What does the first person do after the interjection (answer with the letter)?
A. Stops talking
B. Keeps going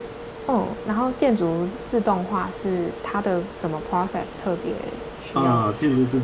A